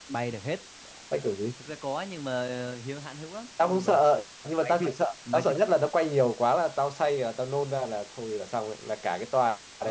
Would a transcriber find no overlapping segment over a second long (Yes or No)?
Yes